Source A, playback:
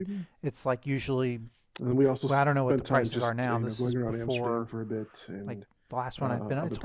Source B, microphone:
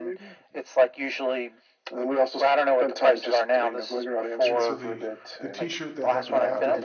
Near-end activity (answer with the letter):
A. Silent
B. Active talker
B